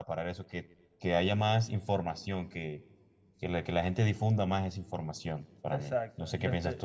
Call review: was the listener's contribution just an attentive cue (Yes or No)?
No